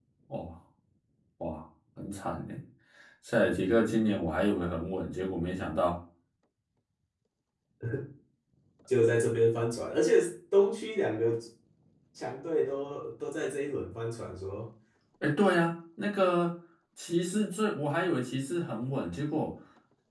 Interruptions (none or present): none